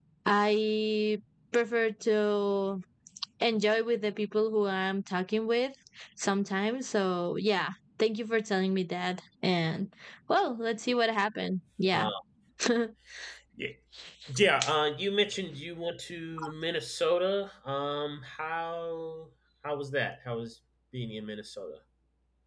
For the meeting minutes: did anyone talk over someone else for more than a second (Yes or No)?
No